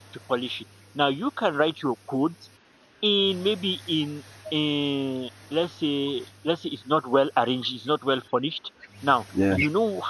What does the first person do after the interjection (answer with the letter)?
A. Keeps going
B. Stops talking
A